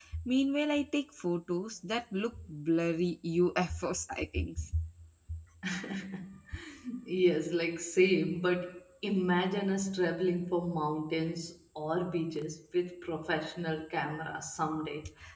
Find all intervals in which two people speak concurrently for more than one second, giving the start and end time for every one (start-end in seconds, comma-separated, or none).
none